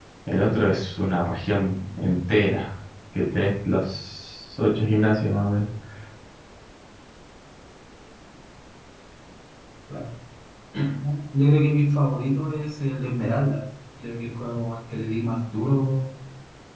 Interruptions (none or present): none